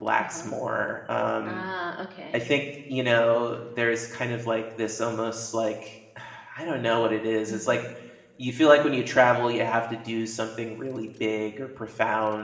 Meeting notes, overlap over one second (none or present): none